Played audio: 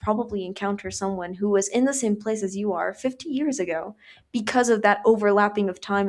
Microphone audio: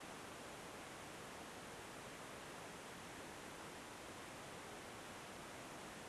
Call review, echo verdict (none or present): none